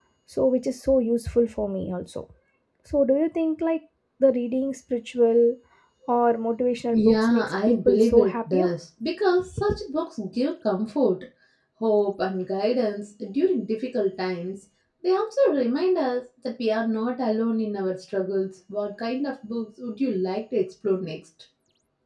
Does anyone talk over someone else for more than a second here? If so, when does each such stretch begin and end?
6.9-8.7

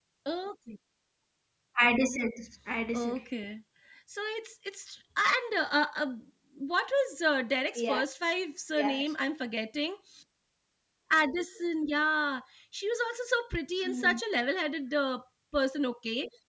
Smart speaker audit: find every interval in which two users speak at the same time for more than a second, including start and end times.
none

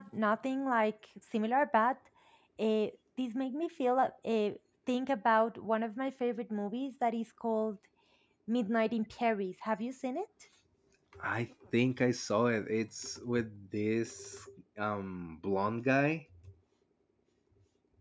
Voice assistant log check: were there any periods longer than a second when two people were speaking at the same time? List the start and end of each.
none

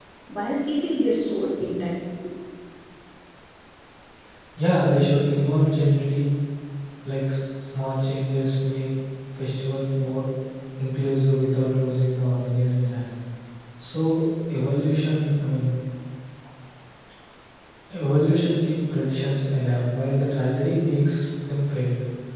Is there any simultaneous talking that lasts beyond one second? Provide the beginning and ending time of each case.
none

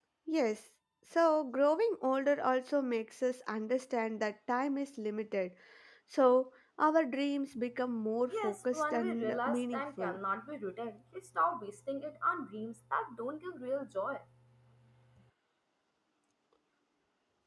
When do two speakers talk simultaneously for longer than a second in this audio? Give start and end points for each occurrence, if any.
8.3-10.2

